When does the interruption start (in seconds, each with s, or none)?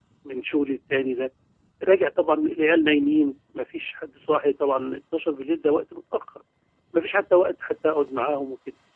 none